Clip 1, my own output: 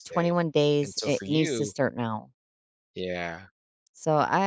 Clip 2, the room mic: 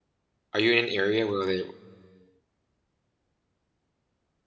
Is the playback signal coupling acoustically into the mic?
No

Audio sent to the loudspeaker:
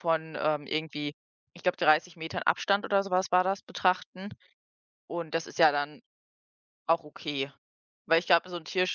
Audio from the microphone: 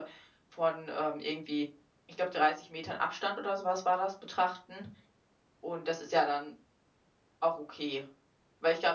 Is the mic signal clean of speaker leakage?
No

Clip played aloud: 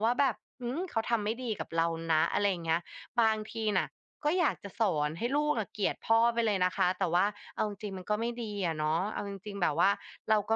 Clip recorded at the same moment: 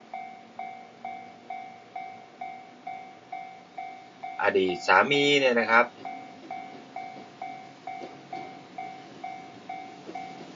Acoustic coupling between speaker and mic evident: No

